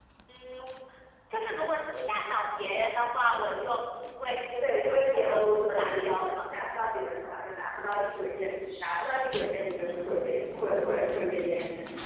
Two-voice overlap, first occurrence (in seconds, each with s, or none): 4.6 s